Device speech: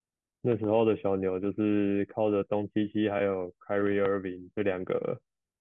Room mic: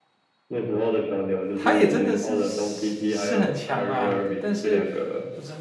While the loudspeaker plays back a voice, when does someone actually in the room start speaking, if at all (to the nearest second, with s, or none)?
2 s